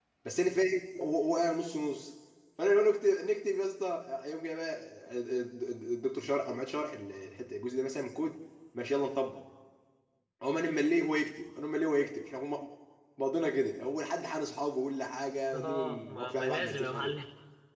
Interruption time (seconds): 15.5 s

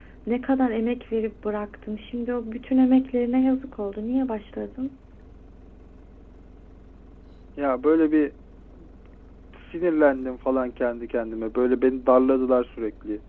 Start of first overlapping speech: none

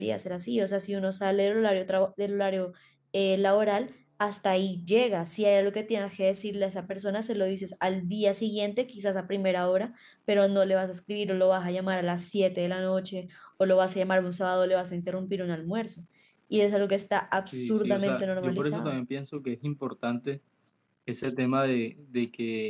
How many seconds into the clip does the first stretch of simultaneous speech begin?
17.5 s

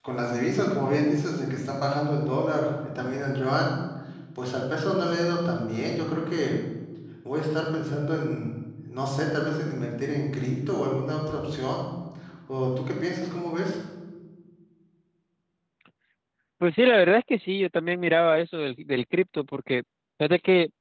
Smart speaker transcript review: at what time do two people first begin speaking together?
none

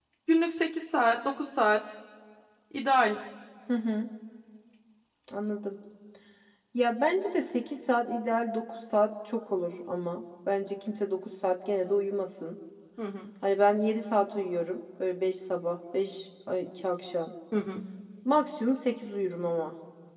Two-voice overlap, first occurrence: none

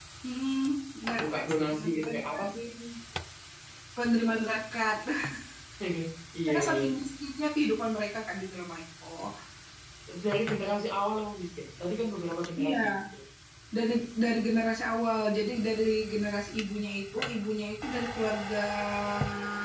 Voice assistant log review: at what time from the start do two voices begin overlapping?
1.2 s

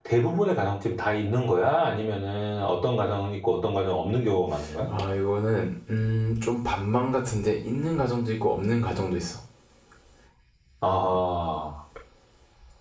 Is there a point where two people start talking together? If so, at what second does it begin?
none

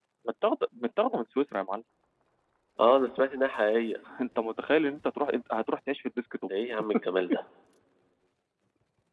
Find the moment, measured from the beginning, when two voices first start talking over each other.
none

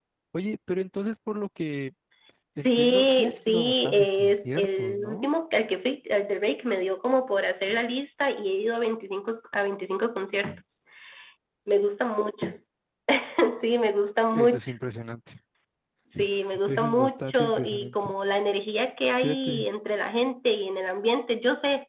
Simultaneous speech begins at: 2.6 s

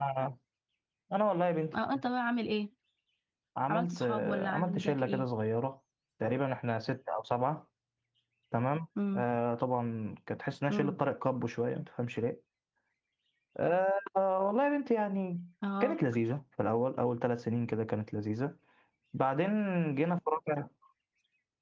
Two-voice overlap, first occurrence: 3.7 s

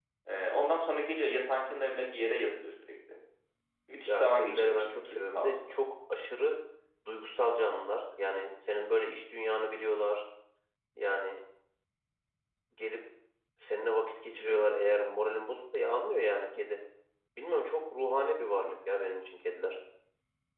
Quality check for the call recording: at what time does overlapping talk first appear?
4.1 s

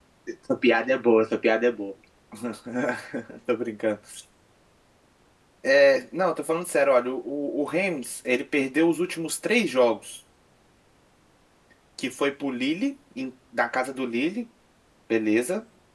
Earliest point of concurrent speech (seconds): none

